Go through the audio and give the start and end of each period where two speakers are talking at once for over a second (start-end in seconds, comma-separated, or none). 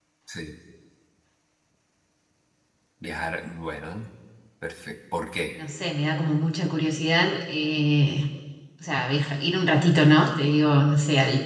none